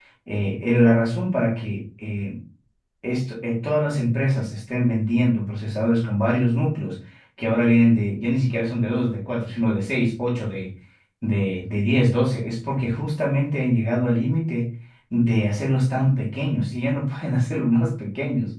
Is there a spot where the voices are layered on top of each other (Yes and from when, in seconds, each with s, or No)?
No